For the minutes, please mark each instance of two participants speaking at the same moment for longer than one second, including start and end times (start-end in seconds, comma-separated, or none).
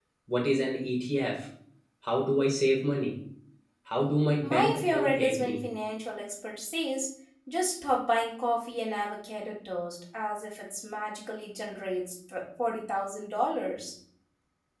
4.4-5.6